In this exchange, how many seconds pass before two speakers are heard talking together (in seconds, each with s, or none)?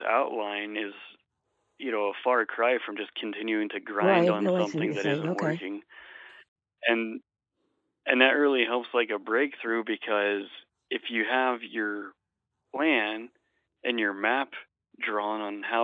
4.0 s